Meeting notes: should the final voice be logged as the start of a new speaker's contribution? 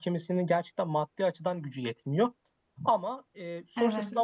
No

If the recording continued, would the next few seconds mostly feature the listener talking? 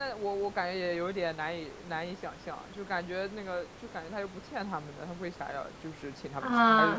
Yes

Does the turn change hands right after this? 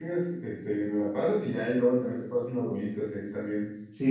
Yes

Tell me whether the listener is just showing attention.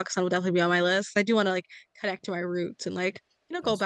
Yes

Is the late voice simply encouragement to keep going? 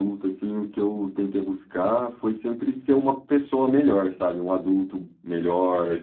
Yes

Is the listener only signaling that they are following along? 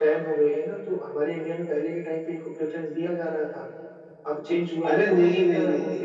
No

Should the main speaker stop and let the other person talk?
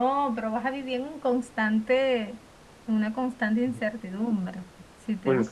Yes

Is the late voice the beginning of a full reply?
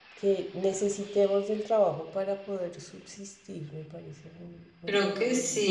Yes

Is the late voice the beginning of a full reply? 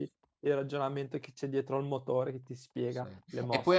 Yes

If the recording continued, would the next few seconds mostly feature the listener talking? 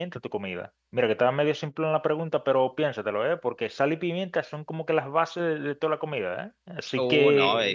Yes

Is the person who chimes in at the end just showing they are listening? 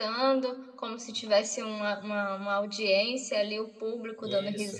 Yes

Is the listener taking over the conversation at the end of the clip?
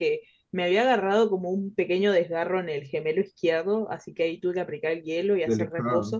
No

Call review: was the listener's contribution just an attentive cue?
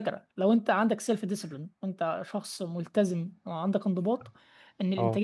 Yes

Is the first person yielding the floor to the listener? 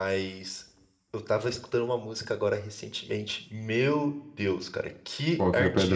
No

